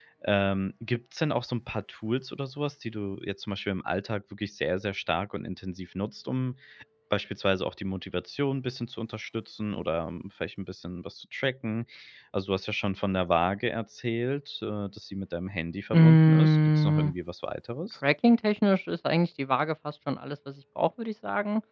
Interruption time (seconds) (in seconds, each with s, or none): 15.9 s